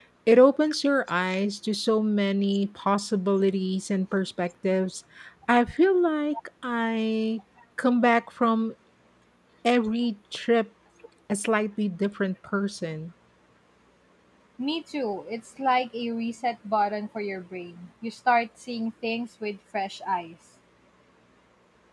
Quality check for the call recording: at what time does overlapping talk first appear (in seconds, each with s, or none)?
none